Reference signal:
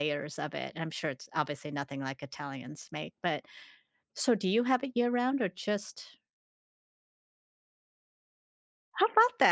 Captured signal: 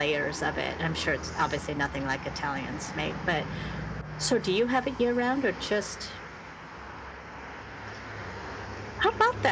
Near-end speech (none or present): none